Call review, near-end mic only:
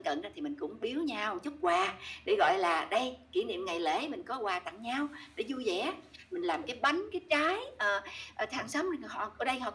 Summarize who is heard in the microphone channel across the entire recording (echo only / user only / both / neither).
echo only